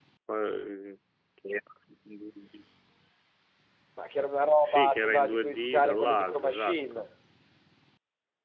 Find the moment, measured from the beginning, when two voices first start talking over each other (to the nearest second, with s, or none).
5 s